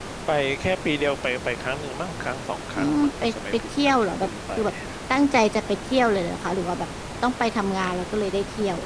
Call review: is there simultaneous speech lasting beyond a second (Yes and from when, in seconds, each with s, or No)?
Yes, from 2.8 s